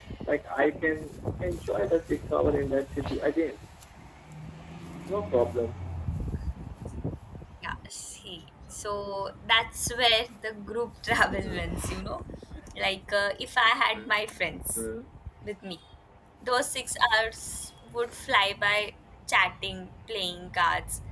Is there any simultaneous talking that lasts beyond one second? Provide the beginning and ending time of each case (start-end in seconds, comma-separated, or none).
none